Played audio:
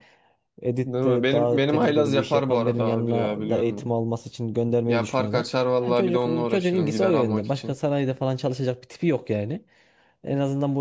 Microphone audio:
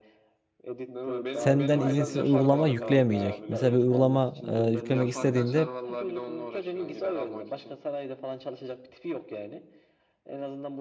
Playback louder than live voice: No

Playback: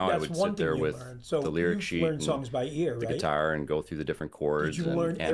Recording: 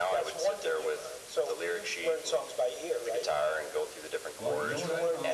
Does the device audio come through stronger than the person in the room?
Yes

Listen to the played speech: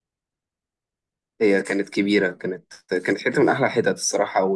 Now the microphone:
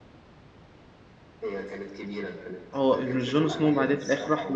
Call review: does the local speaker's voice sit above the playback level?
Yes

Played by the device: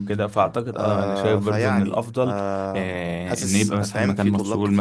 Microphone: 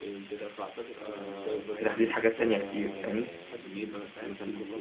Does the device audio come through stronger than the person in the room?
No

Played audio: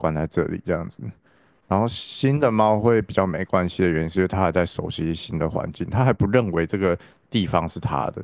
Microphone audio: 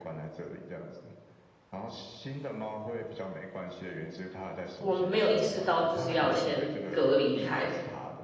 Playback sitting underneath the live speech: Yes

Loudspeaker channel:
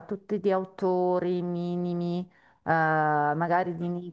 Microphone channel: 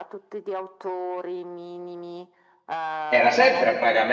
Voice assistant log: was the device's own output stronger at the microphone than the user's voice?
No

